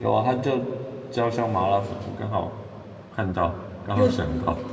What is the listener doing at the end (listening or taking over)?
taking over